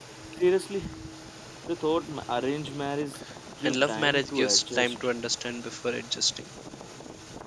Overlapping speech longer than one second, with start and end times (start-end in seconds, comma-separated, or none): 3.6-5.0